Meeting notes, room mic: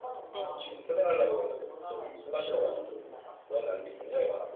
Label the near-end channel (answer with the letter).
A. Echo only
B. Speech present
B